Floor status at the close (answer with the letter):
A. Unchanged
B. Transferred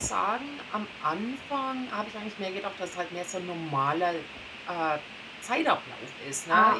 A